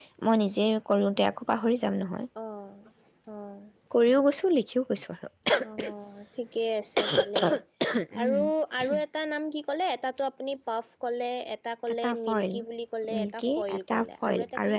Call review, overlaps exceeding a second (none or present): present